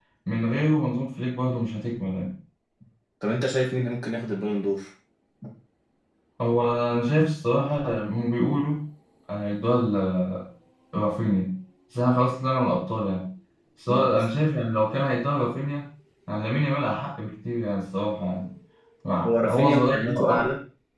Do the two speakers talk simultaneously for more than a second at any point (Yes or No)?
Yes